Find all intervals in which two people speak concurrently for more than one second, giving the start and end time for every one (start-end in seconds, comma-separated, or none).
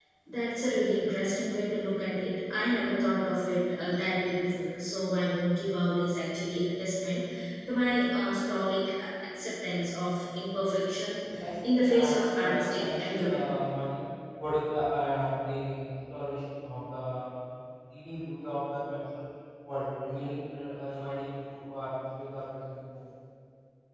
11.7-13.4